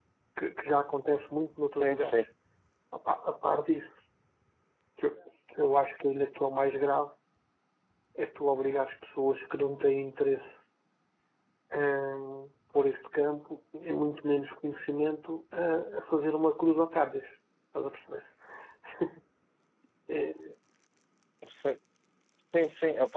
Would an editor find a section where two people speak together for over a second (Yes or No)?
No